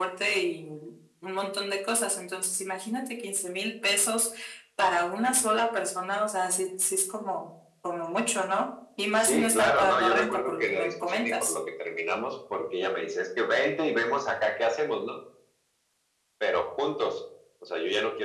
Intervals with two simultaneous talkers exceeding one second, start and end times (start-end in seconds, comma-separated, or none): 9.2-11.5